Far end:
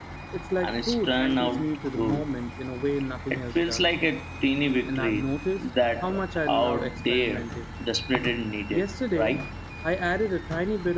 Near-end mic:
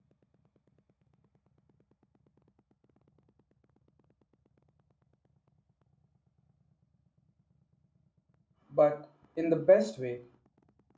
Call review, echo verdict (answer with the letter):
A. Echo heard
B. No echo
B